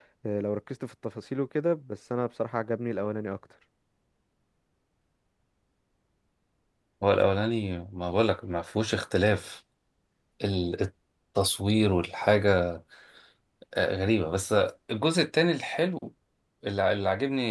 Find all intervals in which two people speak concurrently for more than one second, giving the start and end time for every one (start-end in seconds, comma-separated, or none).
none